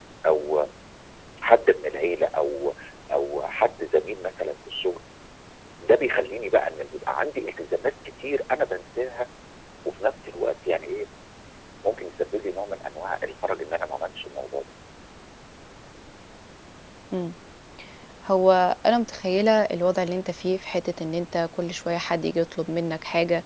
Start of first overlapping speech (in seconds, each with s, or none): none